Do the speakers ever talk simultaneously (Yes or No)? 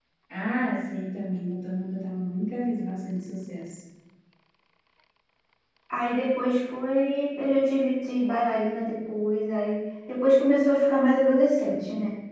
No